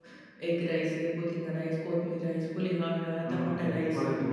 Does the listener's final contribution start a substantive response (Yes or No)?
Yes